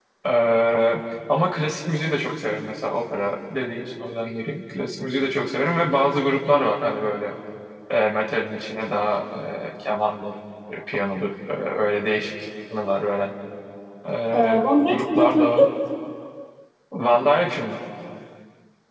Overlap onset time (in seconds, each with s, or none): 14.3 s